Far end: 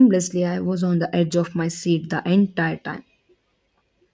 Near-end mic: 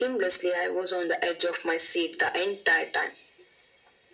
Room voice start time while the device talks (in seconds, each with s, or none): none